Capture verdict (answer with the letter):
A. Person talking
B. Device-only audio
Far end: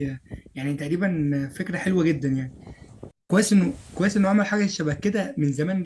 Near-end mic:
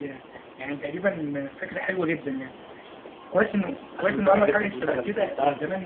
A